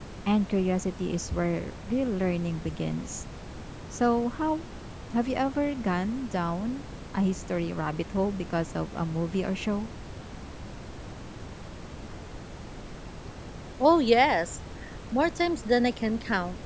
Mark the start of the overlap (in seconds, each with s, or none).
none